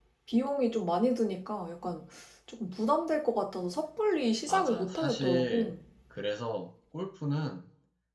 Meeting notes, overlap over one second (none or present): present